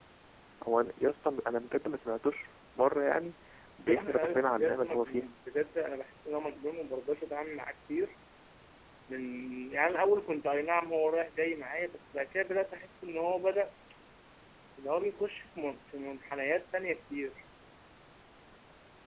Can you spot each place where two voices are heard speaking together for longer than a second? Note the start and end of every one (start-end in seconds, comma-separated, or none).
3.9-5.3